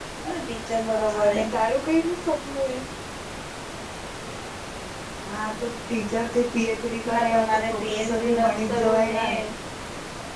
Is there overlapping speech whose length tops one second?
Yes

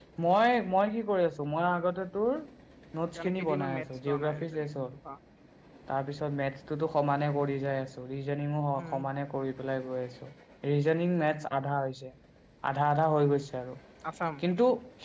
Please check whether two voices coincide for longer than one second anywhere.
Yes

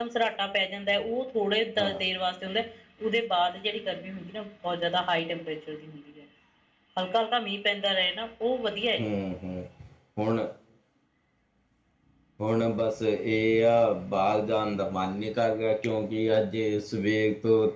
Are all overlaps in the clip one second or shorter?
Yes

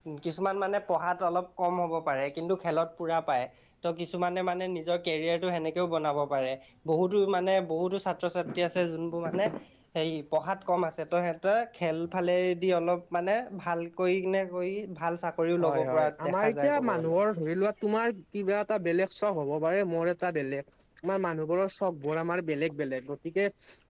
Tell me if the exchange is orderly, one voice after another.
No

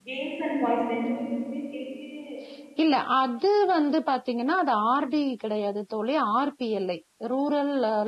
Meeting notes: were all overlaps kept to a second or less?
Yes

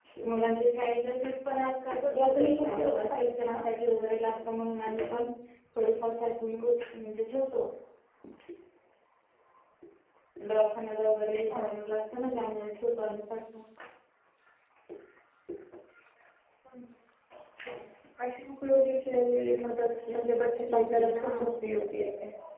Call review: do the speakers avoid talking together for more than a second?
No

